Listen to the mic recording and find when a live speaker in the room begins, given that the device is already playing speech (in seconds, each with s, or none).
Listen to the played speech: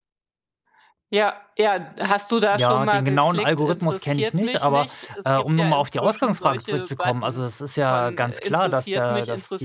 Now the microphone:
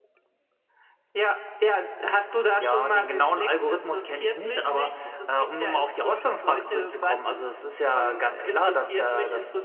none